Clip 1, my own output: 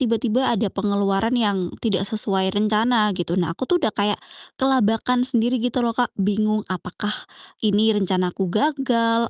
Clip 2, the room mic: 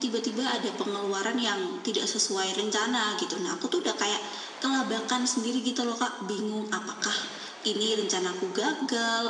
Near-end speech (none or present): none